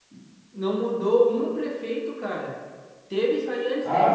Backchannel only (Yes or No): No